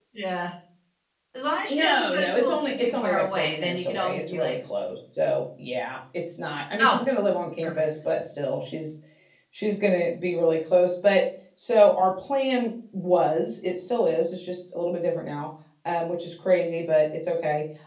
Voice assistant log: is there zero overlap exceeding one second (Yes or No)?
No